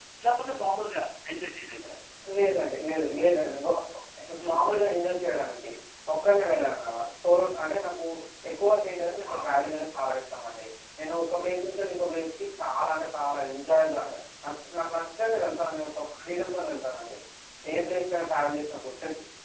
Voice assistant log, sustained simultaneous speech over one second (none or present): none